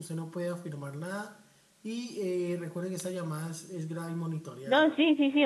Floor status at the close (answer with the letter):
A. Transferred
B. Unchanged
A